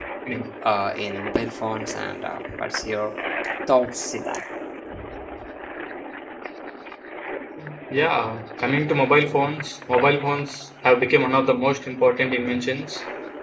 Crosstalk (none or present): none